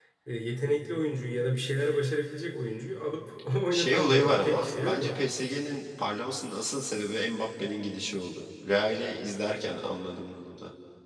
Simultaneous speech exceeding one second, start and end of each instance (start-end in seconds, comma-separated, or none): 3.7-5.2